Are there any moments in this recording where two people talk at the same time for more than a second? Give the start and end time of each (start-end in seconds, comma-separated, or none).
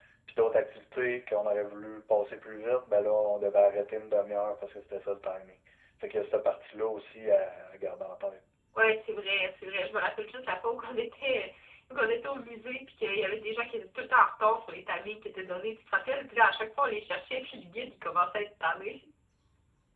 none